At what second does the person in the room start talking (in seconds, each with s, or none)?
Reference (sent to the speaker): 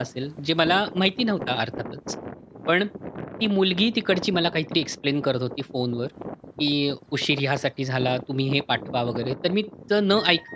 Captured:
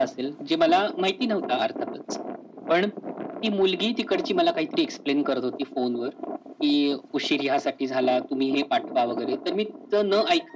none